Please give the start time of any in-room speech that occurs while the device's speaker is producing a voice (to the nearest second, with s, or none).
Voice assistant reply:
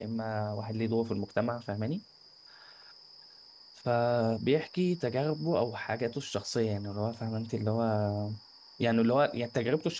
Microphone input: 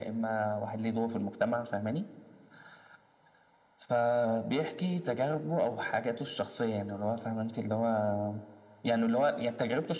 none